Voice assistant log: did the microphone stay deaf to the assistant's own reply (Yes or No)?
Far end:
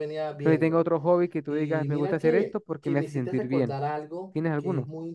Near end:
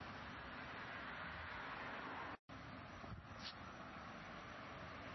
Yes